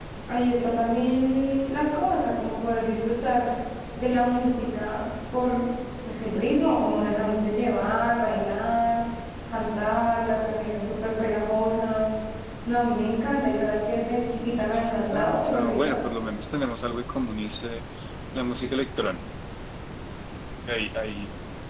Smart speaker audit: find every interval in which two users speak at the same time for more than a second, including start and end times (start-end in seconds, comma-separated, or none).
14.6-16.0